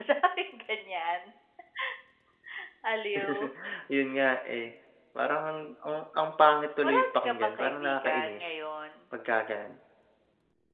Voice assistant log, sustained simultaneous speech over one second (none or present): present